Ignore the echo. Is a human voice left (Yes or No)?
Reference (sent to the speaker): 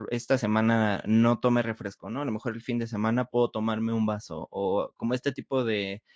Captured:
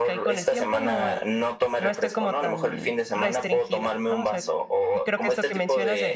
Yes